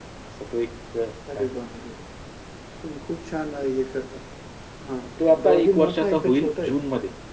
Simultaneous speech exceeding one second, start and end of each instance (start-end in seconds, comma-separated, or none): 5.4-6.8